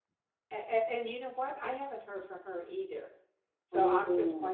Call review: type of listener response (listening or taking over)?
listening